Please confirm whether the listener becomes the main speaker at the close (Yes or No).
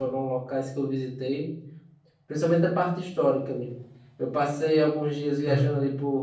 No